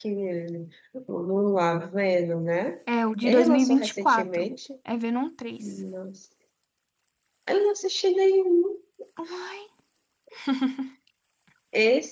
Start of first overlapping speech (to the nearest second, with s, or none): 3 s